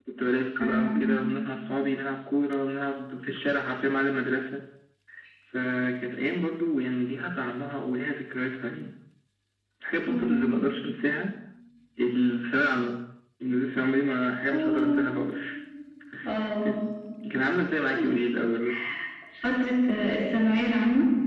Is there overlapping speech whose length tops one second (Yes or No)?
No